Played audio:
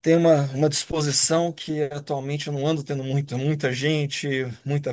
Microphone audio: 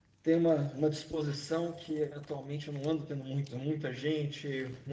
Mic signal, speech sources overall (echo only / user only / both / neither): echo only